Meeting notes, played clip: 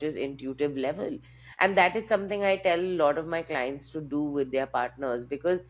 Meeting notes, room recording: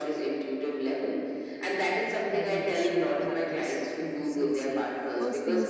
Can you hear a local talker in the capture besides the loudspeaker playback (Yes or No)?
Yes